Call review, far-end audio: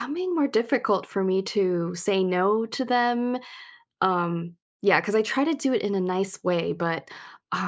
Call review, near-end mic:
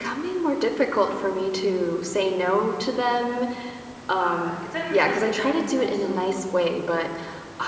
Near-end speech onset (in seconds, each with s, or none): 4.2 s